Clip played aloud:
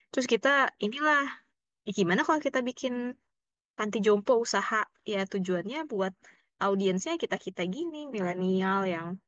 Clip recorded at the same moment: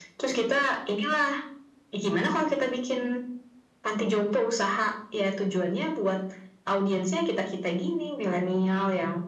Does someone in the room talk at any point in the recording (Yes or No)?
No